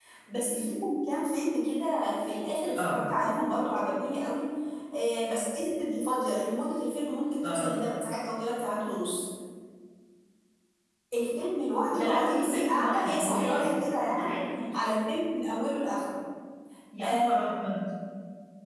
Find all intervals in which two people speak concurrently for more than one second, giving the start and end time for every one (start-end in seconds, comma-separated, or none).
11.9-14.3